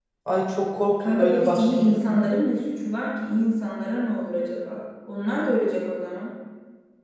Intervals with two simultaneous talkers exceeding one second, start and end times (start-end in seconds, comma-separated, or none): 0.9-2.2